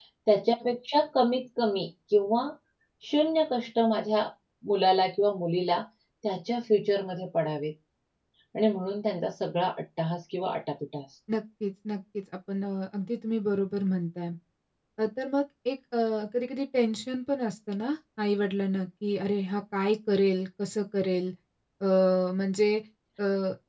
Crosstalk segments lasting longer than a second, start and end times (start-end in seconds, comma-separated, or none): none